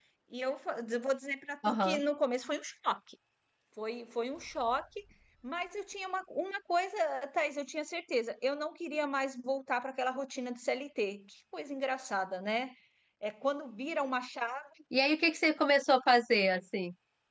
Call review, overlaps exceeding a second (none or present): none